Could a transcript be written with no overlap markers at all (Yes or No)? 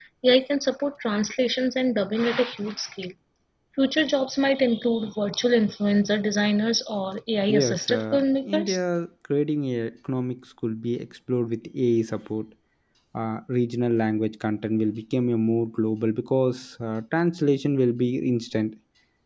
No